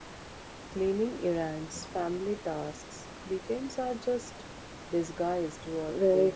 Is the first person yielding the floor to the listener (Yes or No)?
Yes